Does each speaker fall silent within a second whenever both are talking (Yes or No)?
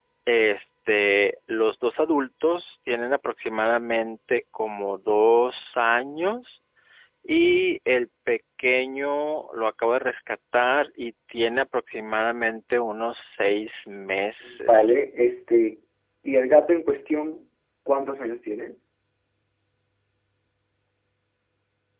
Yes